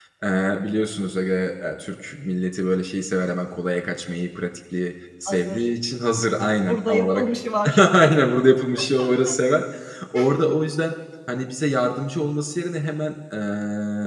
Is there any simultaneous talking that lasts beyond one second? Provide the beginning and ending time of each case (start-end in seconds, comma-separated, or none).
none